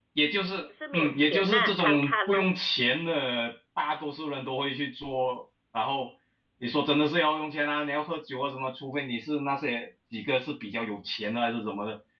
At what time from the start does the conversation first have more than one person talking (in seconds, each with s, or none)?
0.9 s